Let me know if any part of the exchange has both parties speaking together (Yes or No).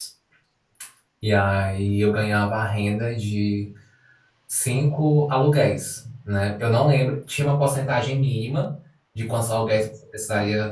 No